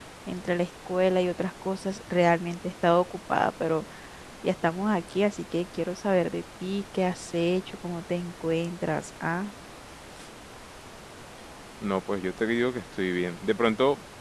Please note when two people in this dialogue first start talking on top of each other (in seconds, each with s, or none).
none